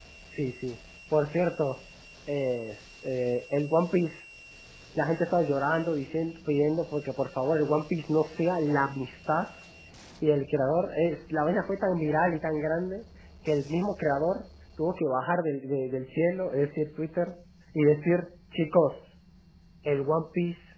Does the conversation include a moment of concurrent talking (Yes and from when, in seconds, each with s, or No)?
No